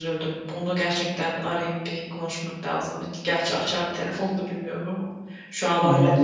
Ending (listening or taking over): taking over